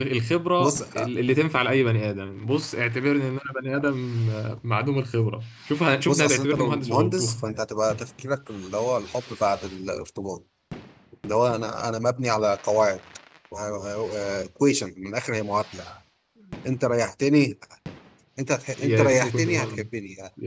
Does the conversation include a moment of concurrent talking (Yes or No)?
Yes